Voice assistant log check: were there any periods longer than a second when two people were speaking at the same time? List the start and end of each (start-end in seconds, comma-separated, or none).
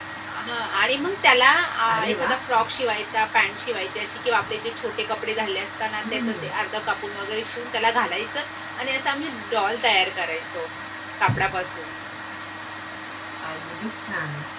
none